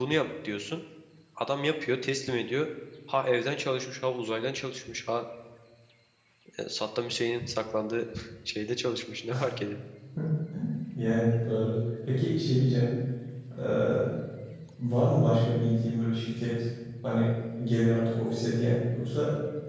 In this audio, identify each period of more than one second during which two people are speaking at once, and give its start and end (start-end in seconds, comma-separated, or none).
none